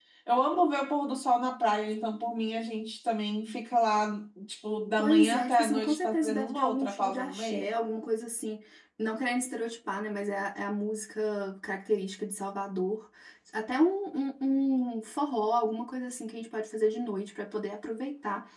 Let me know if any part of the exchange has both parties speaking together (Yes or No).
Yes